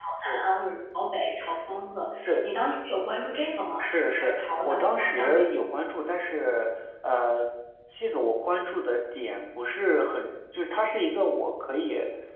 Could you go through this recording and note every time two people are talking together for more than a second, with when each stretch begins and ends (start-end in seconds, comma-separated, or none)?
3.8-5.5